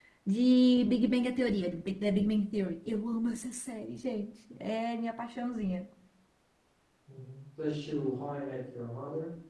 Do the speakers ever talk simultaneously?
No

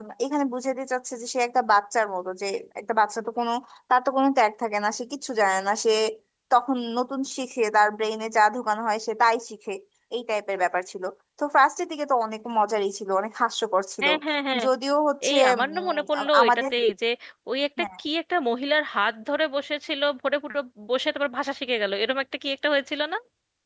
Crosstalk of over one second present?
Yes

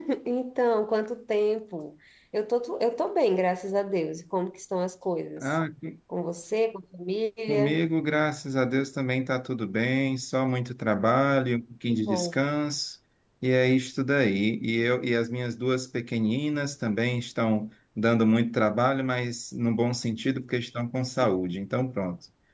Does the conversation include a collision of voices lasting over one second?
No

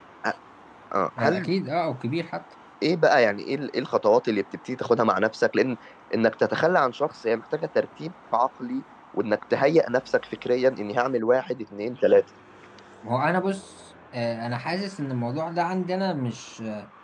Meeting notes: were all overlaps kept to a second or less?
Yes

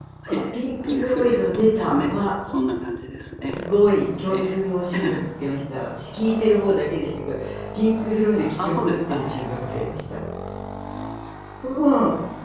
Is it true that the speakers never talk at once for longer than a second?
No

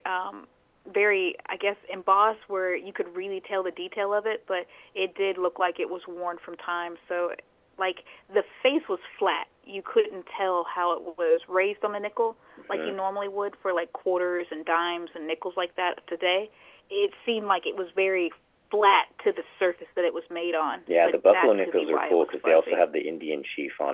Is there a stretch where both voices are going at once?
Yes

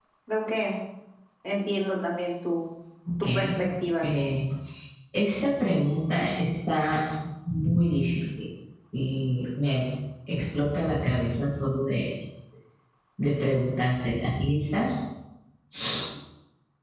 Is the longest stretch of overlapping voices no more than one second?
Yes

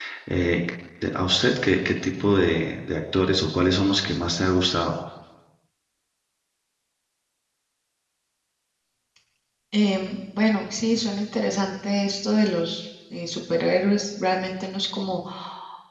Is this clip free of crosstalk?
Yes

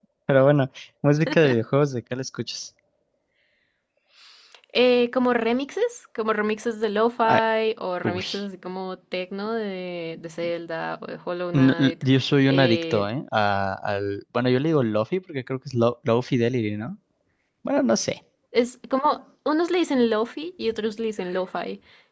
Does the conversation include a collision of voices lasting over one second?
No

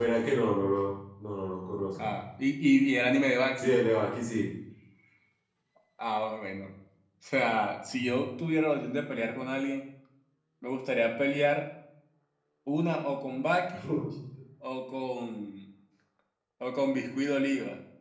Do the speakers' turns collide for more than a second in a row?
No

